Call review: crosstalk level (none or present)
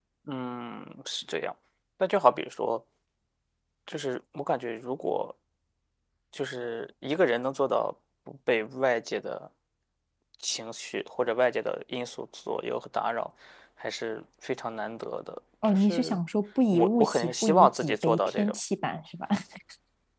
present